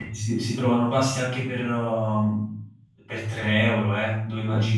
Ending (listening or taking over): taking over